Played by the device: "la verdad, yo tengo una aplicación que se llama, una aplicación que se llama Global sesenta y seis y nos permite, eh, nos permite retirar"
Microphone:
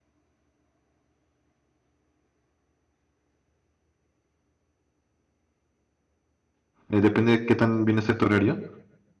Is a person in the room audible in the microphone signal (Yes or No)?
Yes